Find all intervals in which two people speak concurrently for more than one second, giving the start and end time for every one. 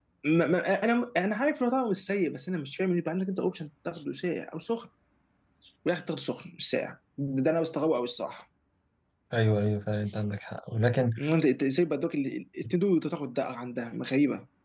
none

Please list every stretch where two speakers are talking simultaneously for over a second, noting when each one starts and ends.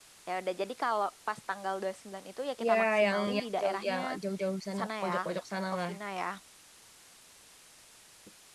2.6-4.0

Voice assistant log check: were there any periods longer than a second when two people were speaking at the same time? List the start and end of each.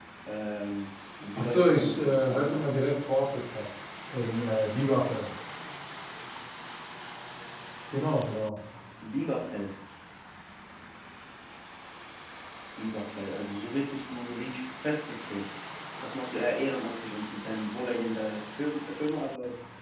1.4-2.6

